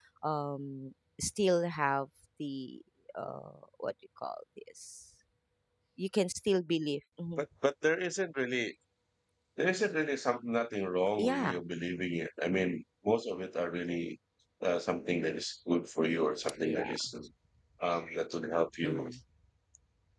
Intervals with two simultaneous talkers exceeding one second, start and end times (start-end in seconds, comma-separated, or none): none